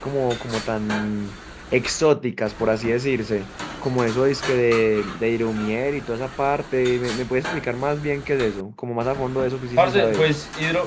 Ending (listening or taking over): taking over